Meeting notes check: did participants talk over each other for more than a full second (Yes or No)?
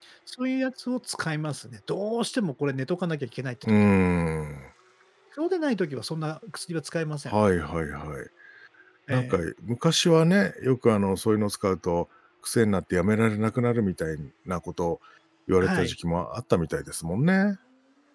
No